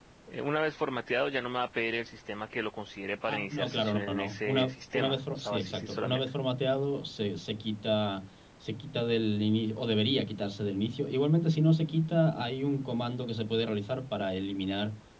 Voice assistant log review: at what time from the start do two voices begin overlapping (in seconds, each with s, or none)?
3.3 s